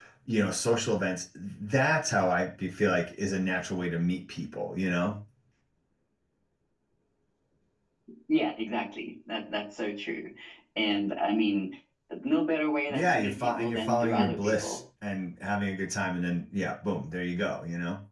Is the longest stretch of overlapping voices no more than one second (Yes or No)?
No